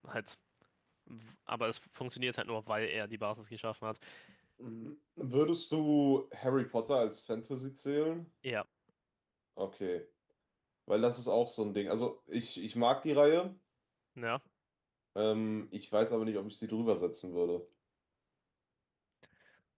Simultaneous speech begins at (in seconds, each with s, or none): none